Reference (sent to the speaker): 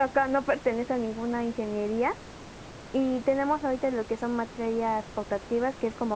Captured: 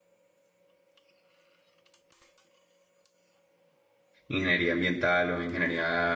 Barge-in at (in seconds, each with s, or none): 4.3 s